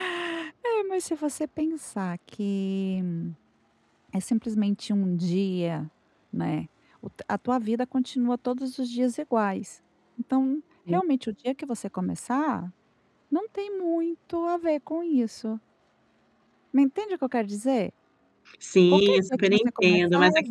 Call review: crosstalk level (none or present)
present